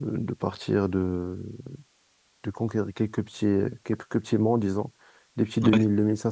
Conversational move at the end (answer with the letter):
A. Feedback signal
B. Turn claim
A